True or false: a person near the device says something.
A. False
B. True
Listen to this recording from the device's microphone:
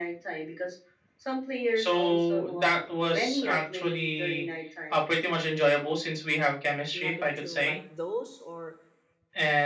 B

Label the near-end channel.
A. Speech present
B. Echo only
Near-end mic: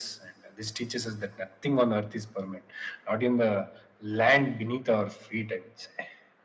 B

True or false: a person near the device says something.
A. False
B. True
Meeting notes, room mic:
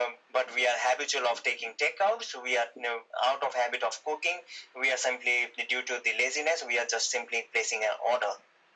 A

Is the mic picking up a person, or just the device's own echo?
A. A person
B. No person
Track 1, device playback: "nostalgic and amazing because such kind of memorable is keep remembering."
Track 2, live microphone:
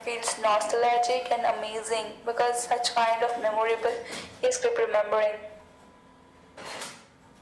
B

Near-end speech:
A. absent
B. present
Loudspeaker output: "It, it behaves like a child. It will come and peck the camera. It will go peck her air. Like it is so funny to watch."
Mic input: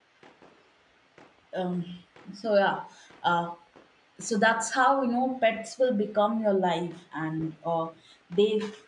B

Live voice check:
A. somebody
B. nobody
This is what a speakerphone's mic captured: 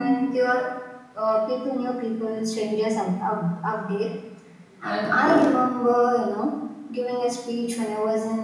B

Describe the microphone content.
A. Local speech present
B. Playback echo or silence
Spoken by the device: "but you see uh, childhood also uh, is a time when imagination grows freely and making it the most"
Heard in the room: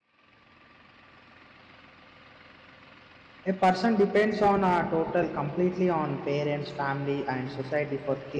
A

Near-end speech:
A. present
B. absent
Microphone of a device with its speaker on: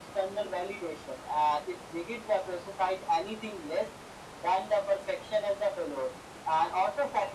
B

